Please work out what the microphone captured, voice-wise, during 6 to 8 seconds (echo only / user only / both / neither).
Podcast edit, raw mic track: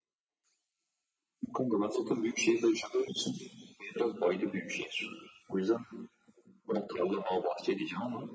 echo only